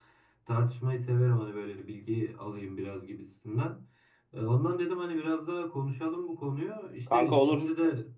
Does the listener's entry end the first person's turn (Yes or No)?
No